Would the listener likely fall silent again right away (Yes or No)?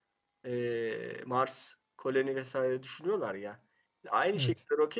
Yes